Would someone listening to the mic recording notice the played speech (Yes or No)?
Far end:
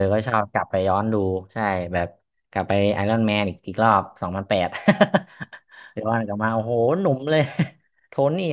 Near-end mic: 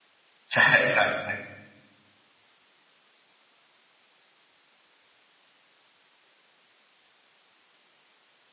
No